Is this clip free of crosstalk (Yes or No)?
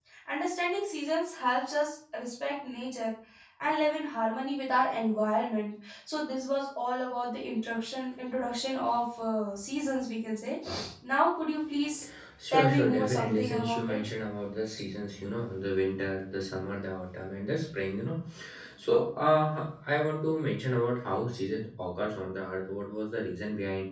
No